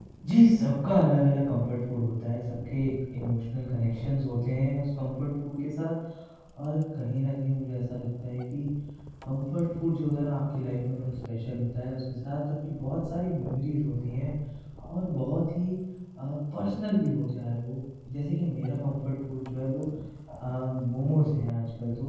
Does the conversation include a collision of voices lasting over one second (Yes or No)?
No